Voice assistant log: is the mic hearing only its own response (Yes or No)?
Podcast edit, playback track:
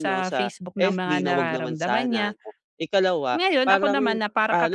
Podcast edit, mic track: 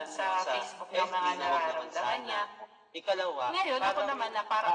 Yes